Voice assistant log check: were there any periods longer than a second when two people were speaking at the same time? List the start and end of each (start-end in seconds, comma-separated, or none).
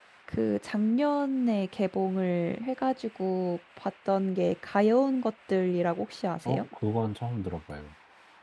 none